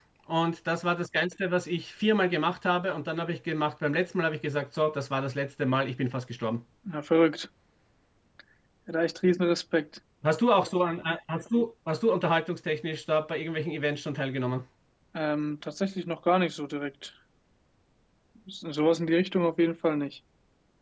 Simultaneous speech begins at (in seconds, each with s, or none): none